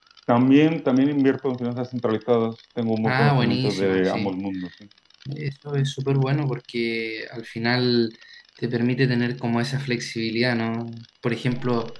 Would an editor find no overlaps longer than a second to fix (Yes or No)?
No